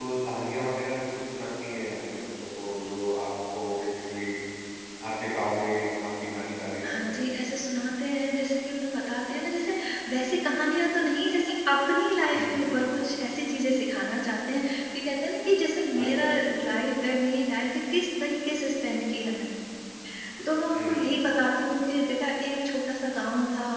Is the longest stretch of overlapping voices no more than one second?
Yes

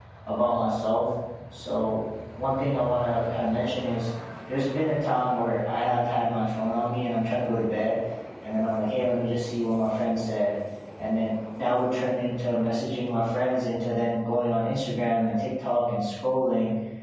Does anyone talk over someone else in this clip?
No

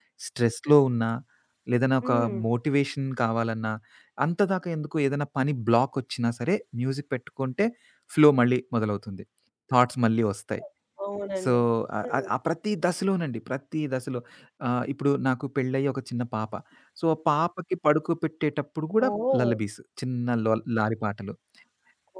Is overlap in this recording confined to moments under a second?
Yes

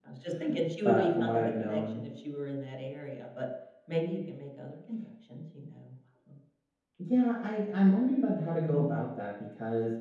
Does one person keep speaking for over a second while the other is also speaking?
Yes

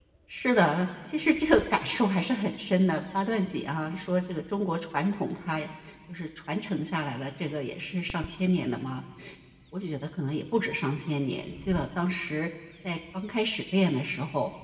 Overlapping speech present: No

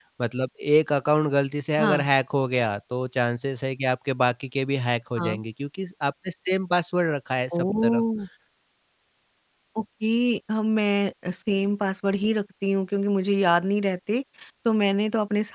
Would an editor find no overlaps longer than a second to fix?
Yes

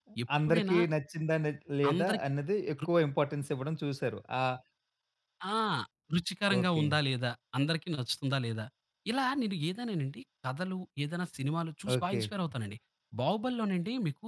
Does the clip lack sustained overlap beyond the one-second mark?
Yes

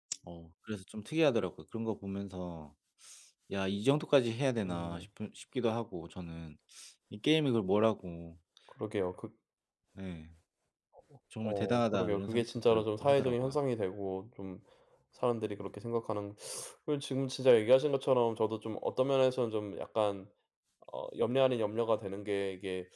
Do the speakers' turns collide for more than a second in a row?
Yes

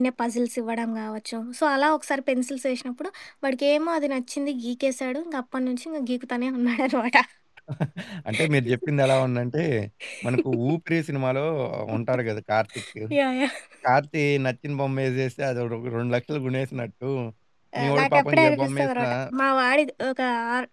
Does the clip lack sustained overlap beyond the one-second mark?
No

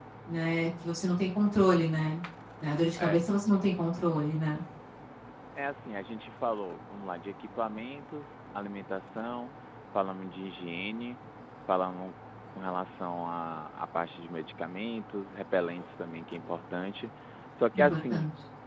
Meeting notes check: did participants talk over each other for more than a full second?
No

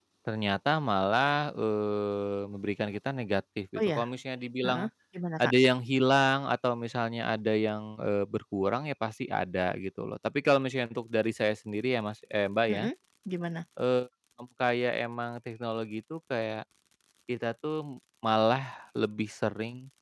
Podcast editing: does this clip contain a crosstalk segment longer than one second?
No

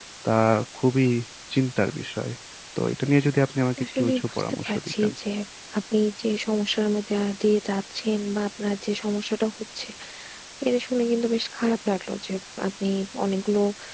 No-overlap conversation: No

